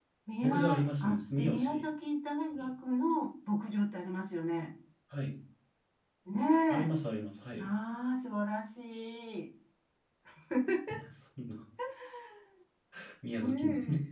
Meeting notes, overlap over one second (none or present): present